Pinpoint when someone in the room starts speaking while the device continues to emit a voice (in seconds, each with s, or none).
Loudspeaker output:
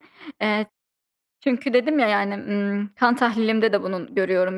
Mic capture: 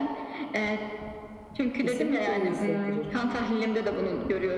1.8 s